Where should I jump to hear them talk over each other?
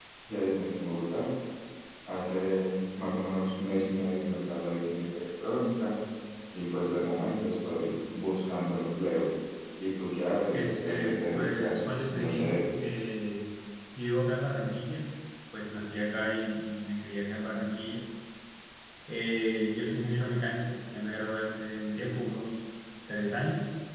10.5 s

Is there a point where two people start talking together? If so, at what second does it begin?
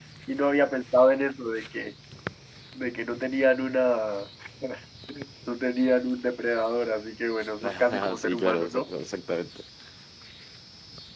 7.6 s

